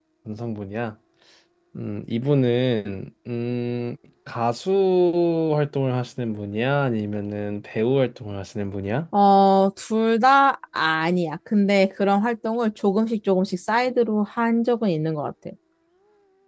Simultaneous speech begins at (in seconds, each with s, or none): none